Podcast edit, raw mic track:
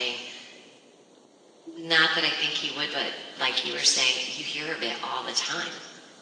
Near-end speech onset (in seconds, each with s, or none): none